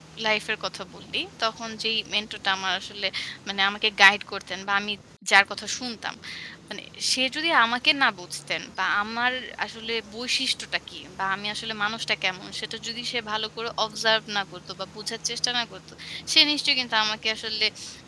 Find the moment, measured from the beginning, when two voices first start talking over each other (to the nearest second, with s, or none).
none